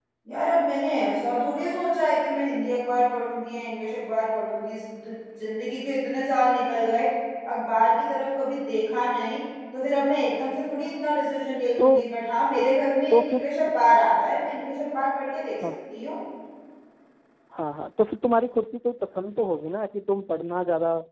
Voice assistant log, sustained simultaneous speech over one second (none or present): none